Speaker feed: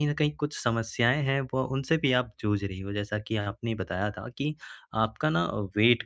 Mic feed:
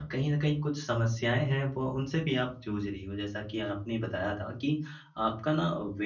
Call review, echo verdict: present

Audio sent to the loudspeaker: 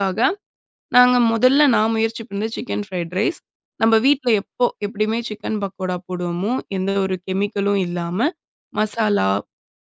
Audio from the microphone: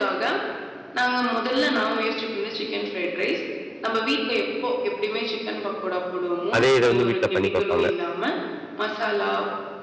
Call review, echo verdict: present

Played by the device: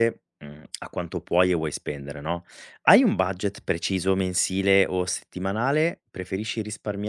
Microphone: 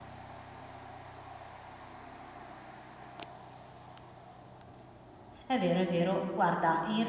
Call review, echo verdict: none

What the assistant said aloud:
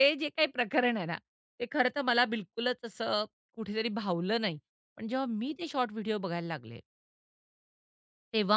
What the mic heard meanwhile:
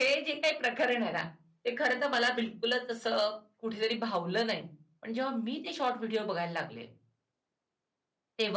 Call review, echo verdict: present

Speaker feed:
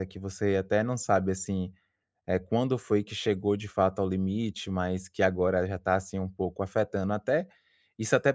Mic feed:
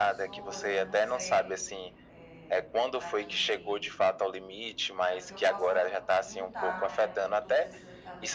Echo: present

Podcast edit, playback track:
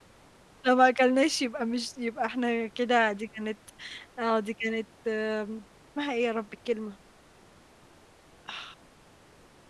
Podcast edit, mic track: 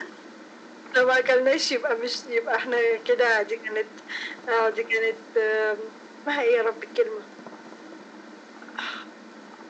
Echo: present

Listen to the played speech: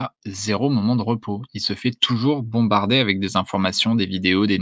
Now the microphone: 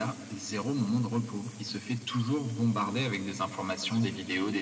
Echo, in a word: present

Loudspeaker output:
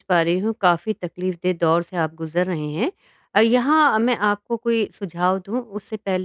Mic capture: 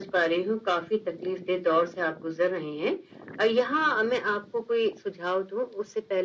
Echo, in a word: present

